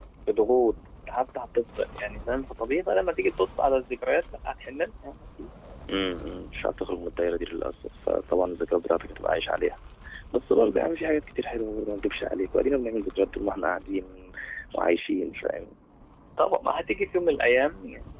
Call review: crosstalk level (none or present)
none